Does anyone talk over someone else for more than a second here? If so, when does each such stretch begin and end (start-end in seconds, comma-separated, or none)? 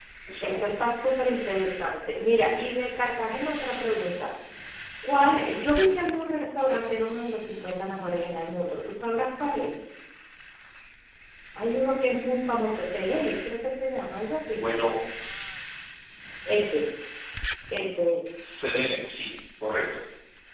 none